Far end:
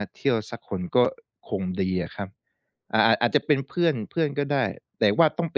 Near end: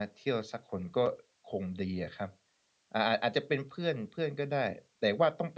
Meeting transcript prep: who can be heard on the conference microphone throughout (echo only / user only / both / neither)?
echo only